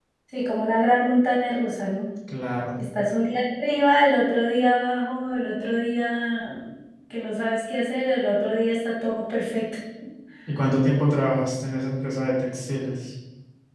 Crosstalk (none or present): none